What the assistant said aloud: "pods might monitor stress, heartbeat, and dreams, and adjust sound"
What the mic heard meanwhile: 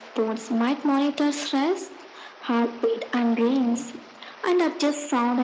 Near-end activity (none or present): present